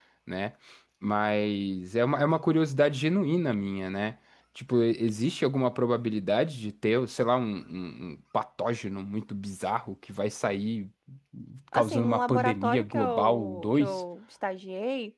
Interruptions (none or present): present